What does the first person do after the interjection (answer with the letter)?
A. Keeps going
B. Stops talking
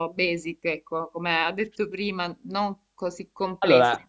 A